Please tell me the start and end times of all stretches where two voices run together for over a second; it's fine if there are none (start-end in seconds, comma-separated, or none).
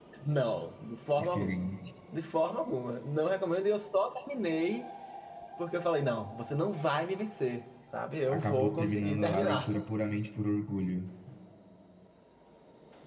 8.3-9.7